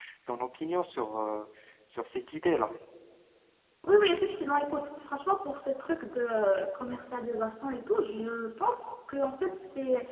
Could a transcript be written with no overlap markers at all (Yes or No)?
Yes